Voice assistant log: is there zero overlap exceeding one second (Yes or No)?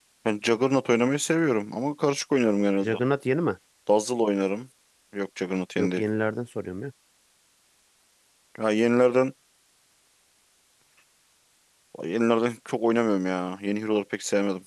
Yes